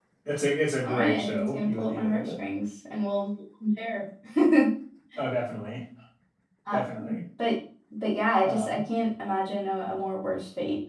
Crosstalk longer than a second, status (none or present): present